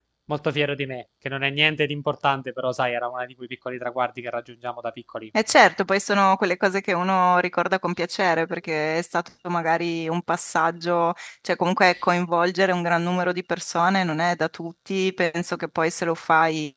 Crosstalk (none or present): none